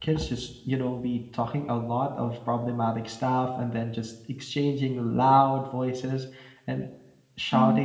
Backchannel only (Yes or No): Yes